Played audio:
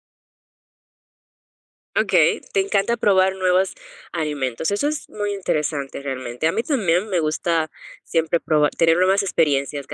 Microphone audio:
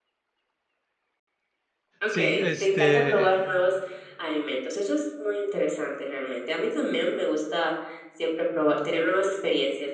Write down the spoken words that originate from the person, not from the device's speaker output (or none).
Sí, este,